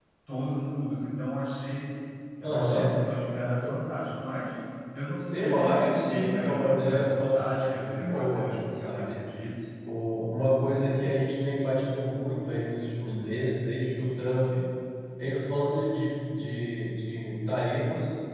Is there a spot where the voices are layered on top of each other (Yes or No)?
Yes